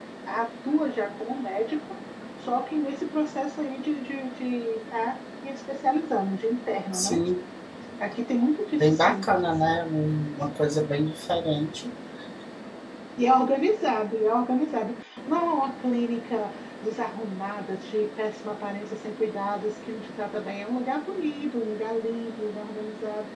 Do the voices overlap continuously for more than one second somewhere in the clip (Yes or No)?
No